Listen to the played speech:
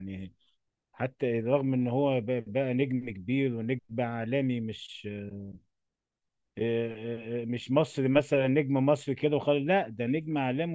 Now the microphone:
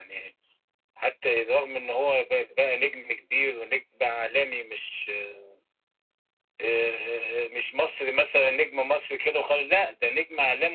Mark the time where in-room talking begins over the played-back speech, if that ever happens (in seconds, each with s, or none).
none